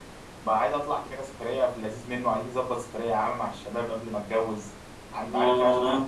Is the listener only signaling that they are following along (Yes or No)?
No